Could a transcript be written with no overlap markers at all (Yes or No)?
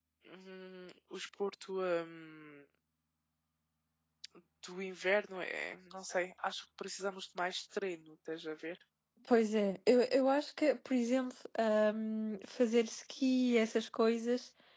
Yes